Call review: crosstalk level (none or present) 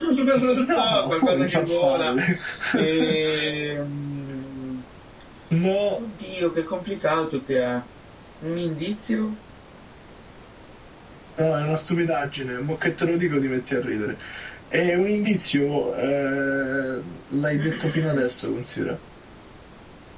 present